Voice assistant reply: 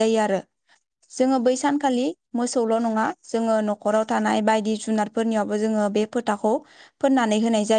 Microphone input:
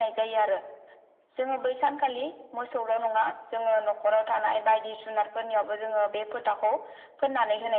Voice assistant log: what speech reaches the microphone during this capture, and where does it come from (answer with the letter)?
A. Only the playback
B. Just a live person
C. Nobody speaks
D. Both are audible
A